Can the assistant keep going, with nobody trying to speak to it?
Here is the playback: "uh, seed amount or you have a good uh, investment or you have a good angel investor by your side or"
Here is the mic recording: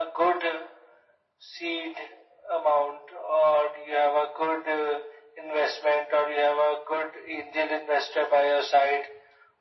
Yes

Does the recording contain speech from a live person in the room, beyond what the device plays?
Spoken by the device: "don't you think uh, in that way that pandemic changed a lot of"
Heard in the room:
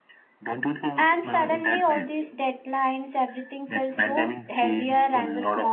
Yes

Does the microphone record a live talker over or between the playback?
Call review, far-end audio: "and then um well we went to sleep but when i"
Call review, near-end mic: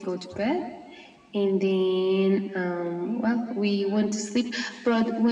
No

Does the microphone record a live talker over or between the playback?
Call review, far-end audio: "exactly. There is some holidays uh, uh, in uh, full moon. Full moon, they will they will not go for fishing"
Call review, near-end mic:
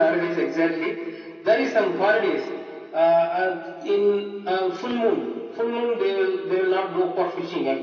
No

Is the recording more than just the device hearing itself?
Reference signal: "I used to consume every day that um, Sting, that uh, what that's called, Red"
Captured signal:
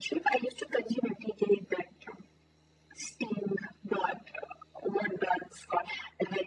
No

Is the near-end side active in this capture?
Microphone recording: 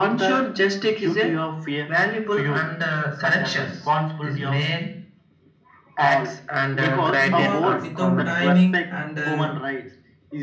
Yes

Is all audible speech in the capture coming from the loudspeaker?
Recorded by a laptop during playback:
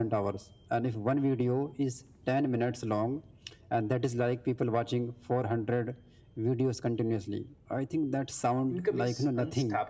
No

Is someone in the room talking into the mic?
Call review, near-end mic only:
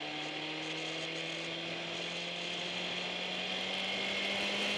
No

